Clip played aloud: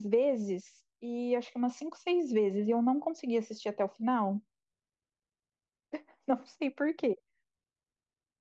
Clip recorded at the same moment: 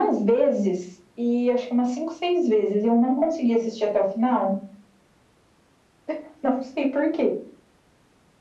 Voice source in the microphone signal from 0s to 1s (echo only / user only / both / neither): echo only